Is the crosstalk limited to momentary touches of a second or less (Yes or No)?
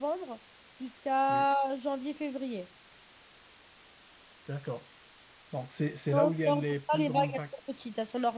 No